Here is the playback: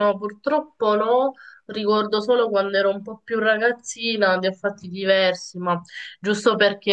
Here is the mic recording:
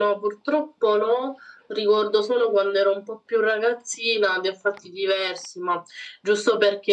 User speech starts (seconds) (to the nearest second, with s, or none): none